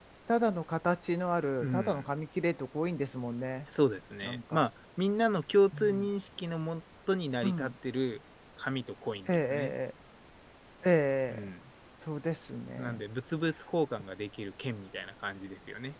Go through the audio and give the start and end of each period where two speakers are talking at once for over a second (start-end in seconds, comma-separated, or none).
none